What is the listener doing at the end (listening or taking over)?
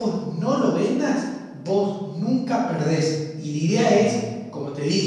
listening